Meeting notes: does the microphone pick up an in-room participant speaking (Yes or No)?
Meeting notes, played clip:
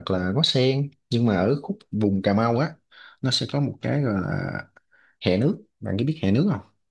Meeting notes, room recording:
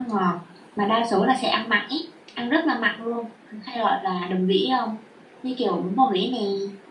Yes